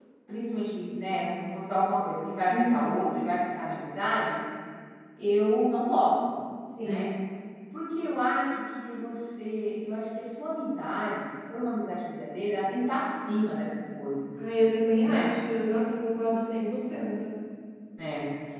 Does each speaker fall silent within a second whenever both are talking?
Yes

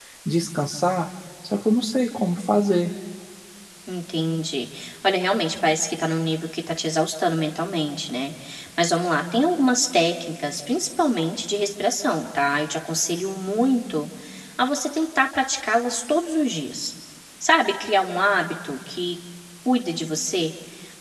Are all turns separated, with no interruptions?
Yes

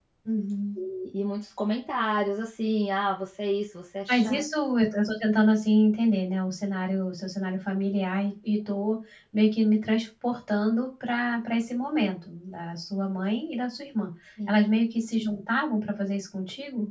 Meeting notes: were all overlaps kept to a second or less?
Yes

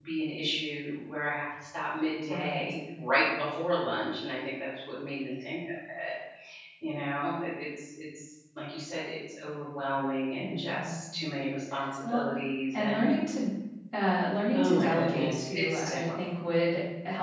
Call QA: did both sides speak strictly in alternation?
No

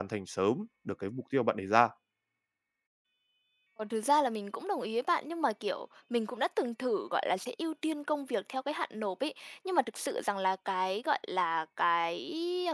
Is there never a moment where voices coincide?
Yes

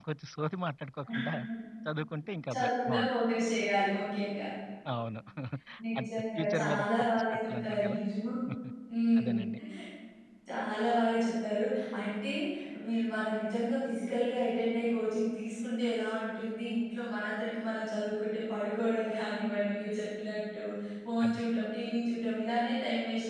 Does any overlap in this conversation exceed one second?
Yes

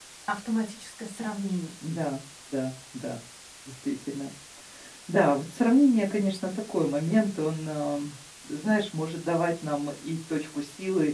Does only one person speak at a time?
Yes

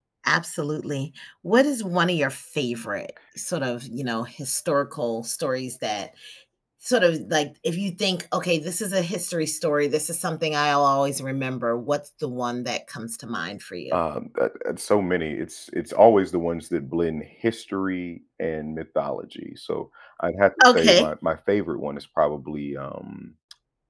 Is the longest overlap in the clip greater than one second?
No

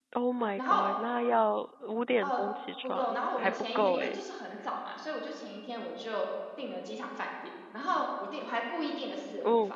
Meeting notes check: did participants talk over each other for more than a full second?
Yes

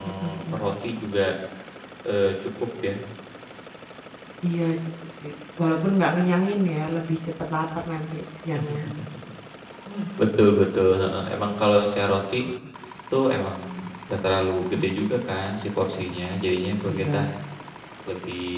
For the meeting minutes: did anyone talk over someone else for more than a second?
No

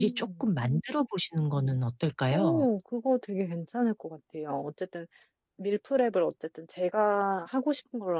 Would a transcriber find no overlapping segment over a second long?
Yes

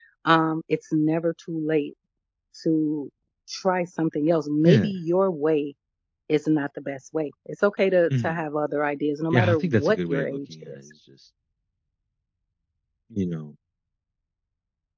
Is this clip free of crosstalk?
No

